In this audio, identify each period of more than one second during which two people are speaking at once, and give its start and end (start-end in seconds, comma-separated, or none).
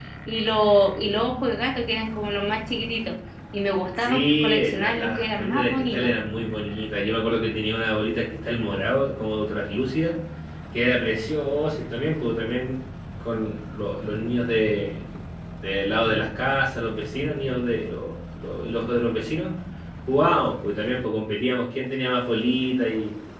4.0-6.1